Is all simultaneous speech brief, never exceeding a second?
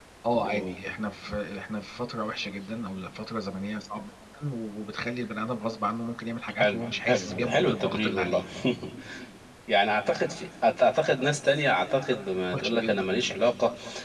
No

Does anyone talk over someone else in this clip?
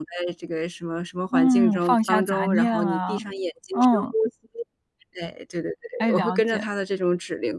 Yes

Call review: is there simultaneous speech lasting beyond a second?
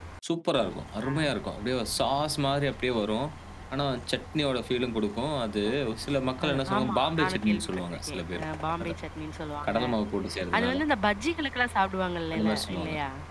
Yes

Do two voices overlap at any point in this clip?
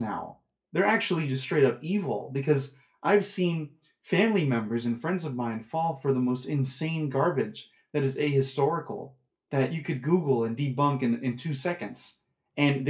No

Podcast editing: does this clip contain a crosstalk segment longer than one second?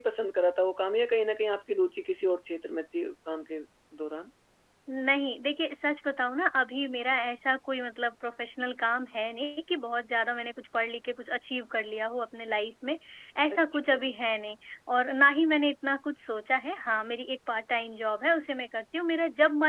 No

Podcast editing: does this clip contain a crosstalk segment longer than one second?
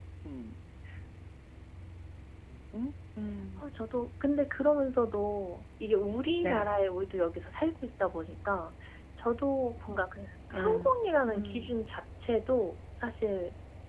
No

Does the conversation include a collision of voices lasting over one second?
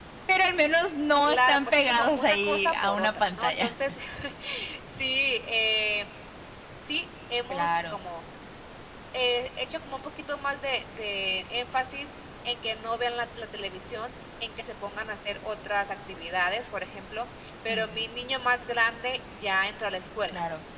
Yes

